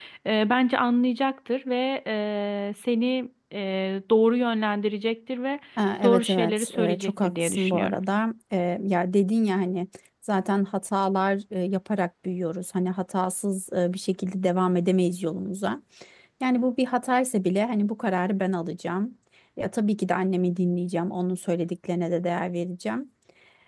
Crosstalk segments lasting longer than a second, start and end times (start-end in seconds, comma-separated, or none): 6.0-8.0